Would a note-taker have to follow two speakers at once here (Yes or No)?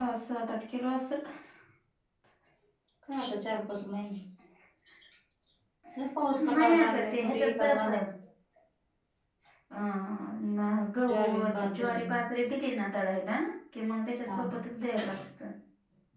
Yes